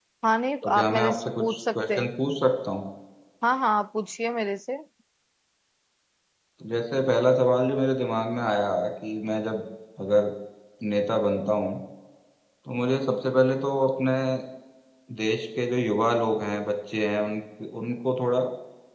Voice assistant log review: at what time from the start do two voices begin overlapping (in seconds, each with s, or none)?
0.6 s